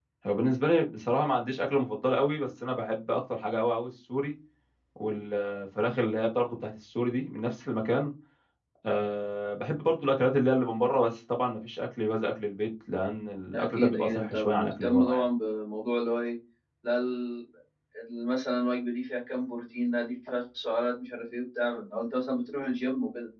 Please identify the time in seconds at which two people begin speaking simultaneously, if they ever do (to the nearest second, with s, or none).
14 s